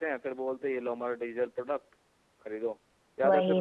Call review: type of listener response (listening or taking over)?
listening